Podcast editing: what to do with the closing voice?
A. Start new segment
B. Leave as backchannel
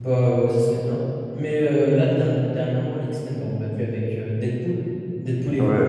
A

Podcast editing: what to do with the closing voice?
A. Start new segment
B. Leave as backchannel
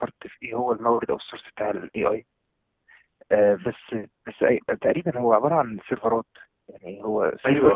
A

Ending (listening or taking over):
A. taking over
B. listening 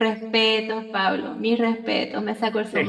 A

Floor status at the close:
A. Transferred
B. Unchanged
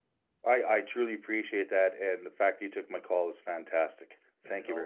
A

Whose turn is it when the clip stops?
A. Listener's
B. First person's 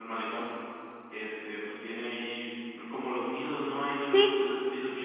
B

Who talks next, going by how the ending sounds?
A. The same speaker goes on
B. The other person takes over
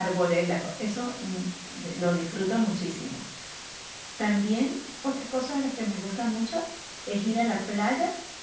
A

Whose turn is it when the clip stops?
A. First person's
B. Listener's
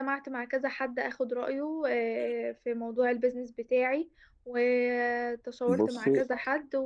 A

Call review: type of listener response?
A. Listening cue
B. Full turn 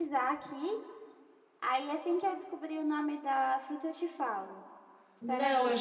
B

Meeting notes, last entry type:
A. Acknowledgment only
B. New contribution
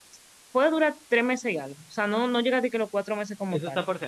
B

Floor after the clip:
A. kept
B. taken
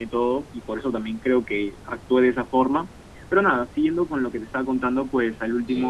A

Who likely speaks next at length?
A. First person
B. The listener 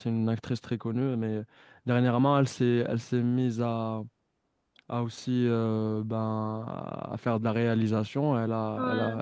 A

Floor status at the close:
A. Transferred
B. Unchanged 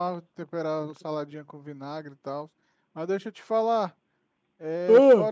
B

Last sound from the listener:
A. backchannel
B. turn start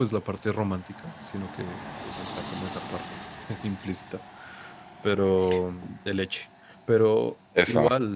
A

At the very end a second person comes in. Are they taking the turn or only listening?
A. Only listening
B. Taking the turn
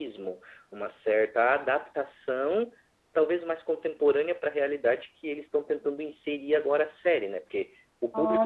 A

